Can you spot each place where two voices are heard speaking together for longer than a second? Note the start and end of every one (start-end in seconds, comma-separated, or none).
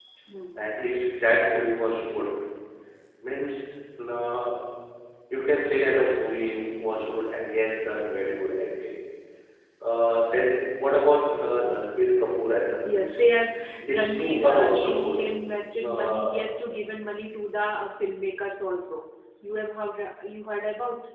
13.9-15.2